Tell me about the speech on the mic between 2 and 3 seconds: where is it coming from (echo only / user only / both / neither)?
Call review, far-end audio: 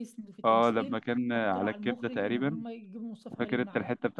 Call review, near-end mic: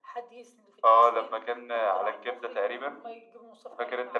echo only